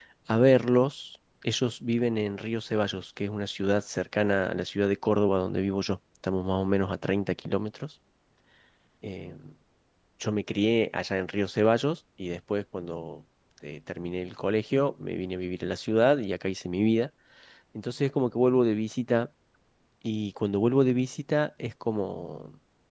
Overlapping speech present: No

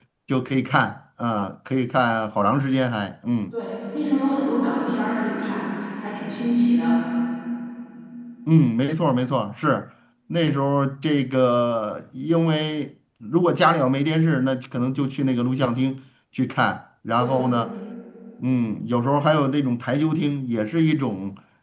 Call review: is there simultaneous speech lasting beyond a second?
No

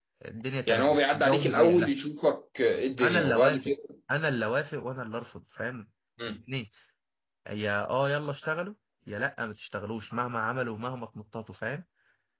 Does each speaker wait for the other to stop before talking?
No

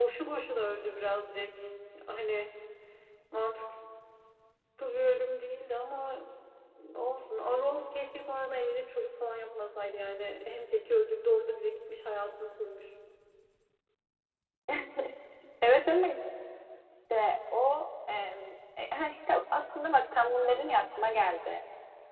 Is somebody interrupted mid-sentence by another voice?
No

